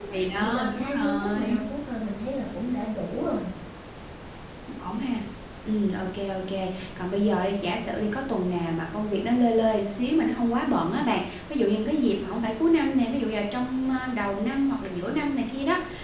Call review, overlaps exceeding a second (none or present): present